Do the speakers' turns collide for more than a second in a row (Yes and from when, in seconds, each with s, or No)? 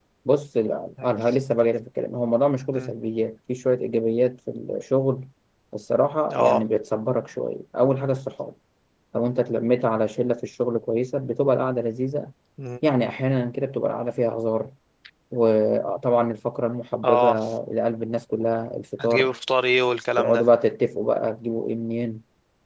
No